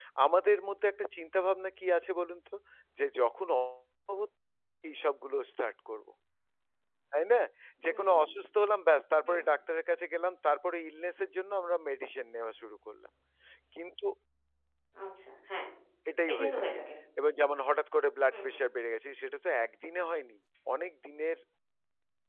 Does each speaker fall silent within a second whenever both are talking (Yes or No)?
Yes